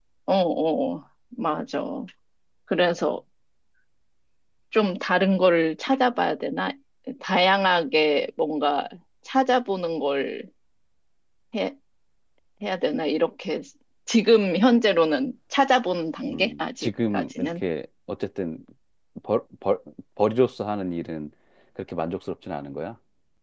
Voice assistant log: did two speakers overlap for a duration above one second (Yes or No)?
Yes